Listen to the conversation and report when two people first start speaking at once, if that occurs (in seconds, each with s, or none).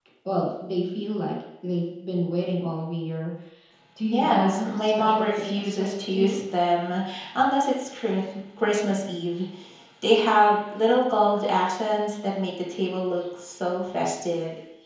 4.1 s